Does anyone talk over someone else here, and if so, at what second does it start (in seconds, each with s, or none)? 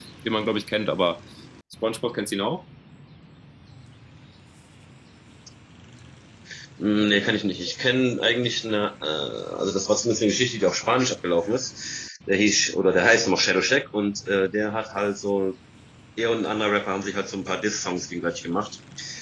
none